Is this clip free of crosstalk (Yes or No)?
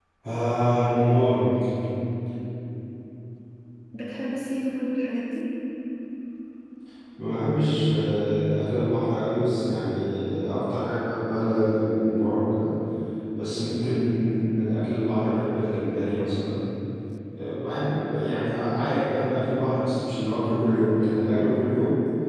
Yes